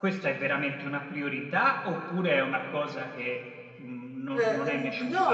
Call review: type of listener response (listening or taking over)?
taking over